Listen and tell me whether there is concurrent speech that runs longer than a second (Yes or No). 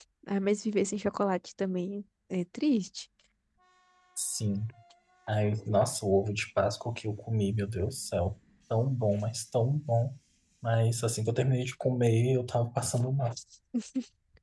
No